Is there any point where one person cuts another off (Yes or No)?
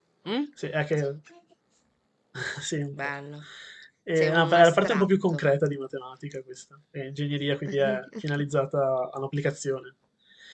Yes